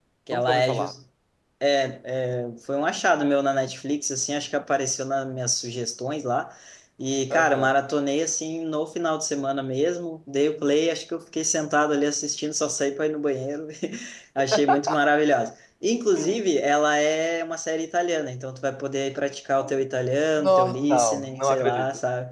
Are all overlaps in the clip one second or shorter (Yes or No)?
No